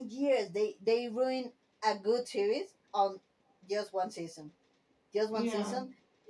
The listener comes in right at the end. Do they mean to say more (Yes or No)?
No